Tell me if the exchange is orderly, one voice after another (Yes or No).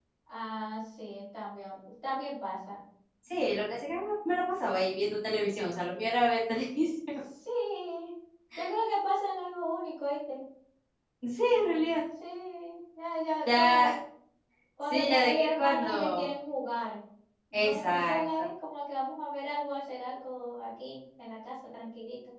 No